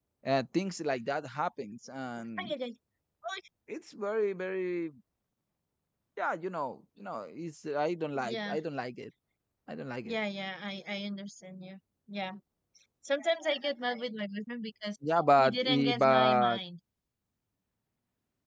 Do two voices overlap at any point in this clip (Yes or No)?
Yes